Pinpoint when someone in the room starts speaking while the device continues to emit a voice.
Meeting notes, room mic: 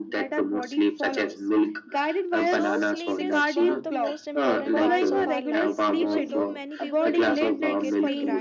2.4 s

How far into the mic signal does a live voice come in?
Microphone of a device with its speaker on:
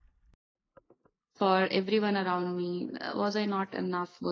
1.4 s

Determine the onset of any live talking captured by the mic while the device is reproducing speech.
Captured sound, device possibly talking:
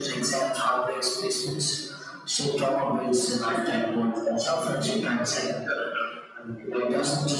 none

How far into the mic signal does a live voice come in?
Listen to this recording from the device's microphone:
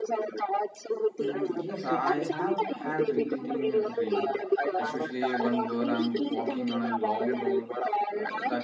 1.2 s

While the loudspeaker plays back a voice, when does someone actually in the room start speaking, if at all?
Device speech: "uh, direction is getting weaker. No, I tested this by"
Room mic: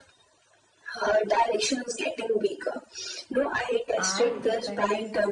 4.0 s

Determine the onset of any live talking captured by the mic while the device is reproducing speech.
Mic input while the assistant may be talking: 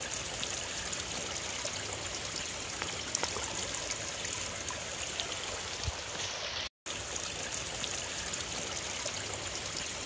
none

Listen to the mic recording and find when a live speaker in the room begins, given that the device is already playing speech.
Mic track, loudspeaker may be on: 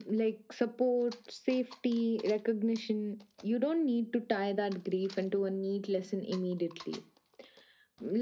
none

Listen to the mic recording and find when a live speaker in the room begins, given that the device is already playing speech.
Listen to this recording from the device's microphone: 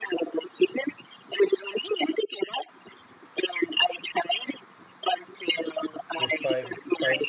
6.1 s

